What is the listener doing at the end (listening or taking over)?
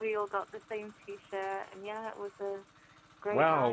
taking over